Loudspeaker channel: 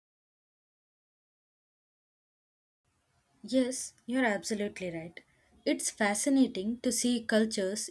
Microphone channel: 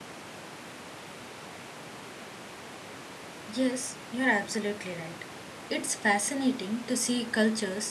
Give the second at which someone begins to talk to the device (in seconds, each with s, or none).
none